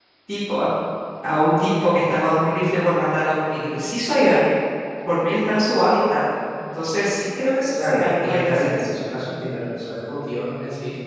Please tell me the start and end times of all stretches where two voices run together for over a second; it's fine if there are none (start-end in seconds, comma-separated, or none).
7.7-8.9